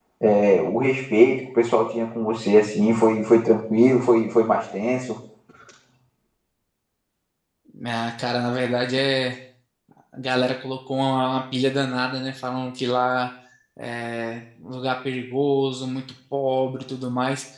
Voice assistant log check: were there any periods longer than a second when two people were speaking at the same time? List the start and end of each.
none

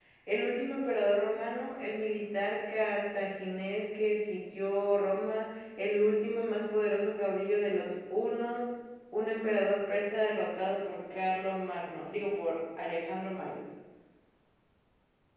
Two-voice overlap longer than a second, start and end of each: none

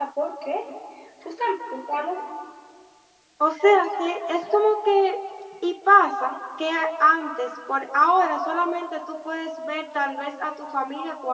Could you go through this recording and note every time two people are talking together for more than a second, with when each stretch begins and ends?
none

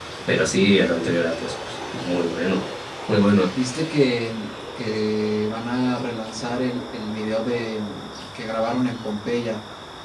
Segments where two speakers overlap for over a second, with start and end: none

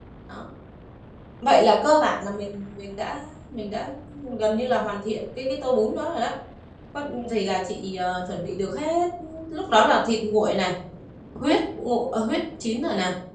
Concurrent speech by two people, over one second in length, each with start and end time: none

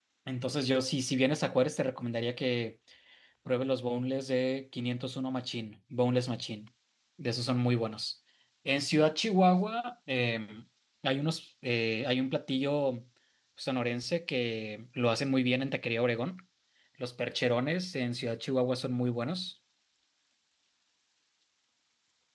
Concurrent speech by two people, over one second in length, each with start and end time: none

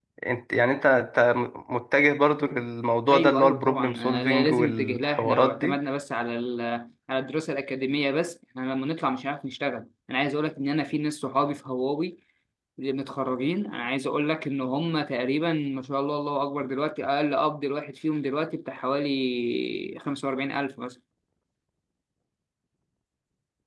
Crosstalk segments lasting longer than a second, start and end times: 3.1-5.8

